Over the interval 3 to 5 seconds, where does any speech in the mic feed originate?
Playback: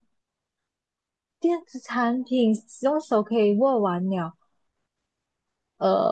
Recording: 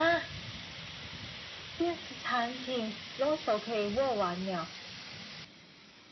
echo only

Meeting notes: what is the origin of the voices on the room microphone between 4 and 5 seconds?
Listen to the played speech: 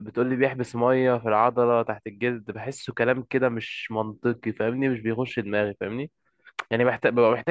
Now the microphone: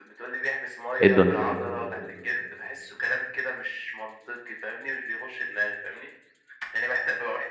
echo only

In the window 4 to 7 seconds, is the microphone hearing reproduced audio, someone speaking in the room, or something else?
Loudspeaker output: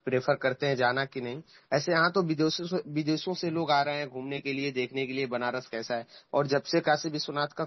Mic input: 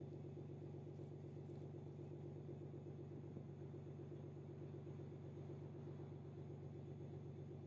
neither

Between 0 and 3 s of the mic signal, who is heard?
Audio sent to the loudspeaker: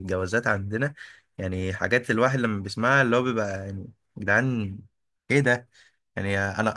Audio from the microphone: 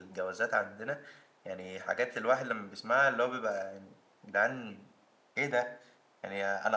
echo only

